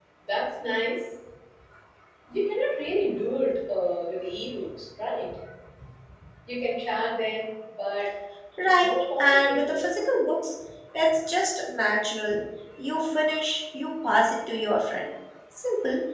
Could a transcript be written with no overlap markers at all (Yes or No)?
No